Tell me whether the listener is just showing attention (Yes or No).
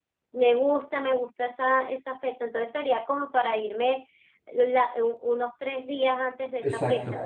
No